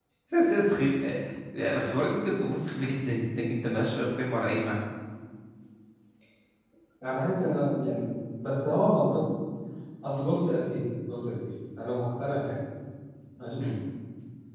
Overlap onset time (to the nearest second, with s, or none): none